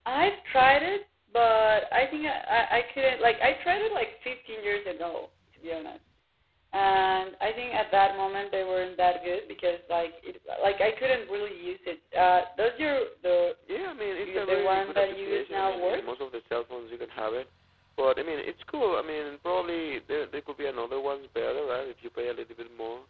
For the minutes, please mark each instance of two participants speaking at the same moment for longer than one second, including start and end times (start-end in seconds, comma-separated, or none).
14.2-16.1